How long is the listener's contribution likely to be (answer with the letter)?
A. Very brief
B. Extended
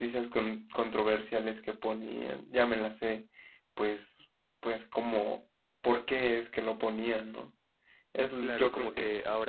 B